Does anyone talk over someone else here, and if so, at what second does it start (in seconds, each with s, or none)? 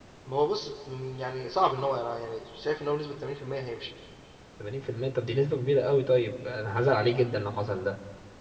none